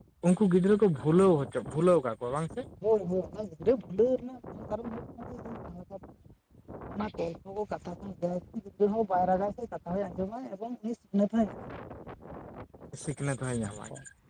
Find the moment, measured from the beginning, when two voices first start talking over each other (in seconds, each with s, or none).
none